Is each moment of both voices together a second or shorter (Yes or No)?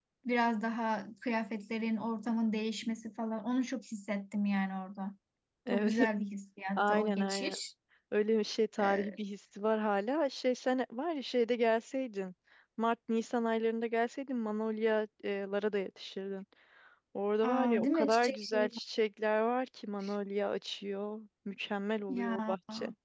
No